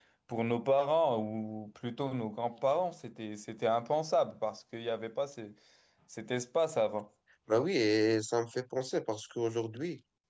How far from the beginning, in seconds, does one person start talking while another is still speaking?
none

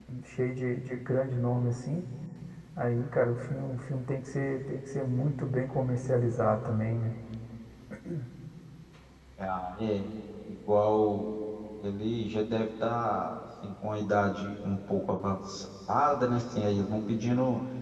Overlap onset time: none

